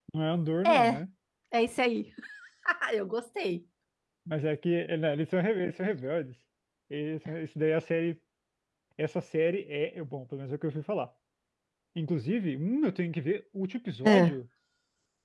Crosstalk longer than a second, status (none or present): none